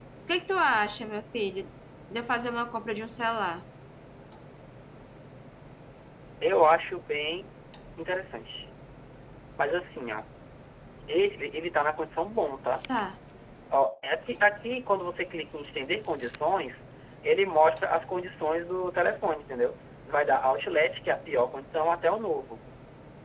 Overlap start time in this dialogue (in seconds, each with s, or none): none